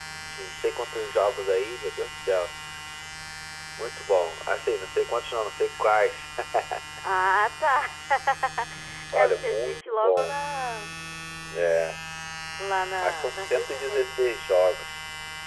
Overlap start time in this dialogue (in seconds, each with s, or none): 9.1 s